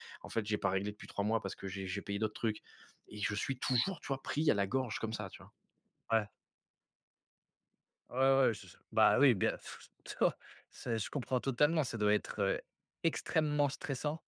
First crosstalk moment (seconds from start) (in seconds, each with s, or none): none